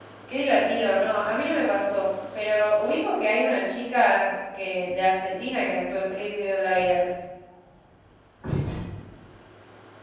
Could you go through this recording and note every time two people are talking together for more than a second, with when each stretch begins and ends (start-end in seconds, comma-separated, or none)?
none